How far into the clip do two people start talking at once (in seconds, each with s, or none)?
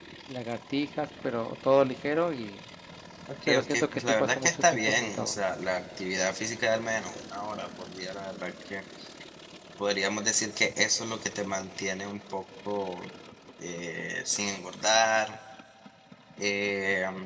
3.5 s